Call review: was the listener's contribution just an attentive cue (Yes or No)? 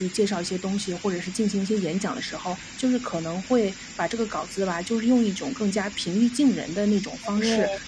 Yes